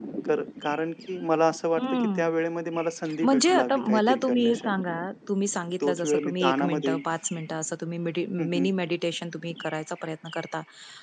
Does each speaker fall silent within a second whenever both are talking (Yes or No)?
No